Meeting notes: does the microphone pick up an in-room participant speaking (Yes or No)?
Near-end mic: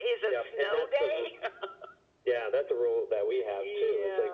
No